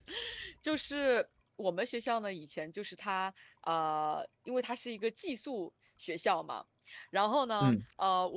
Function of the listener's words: listening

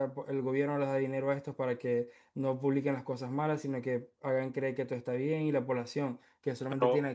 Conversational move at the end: taking over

